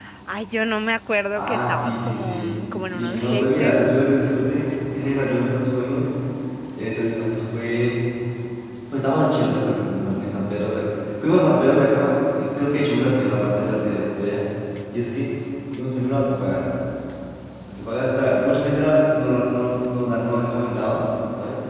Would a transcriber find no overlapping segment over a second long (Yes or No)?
No